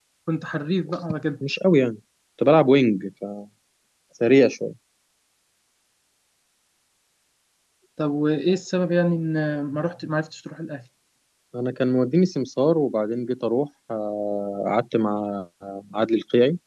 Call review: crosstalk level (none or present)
none